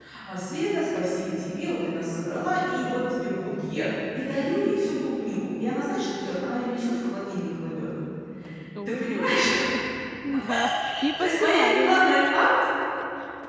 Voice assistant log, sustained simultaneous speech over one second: present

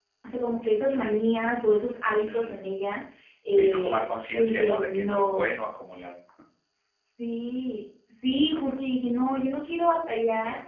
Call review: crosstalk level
present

